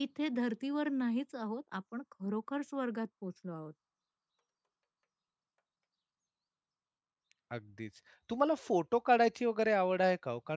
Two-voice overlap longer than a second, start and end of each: none

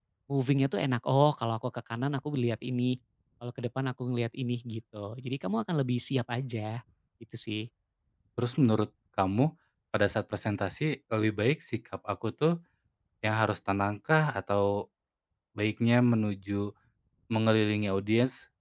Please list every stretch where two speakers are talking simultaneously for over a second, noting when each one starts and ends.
none

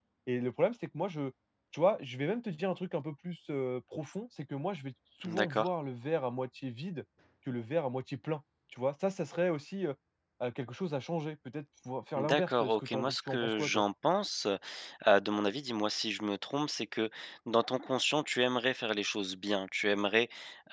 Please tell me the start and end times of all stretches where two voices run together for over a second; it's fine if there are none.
12.2-13.8

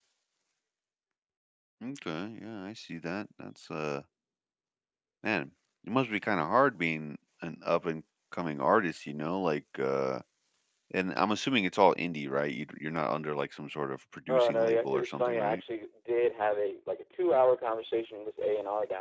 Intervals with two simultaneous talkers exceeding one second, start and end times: 14.3-15.6

